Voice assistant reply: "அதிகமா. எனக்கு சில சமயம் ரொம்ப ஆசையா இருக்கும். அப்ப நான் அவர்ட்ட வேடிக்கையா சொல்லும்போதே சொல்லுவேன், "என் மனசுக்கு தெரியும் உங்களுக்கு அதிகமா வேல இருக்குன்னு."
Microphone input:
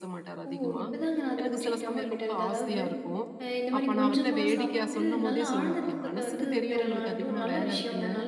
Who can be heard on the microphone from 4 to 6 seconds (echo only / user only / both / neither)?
both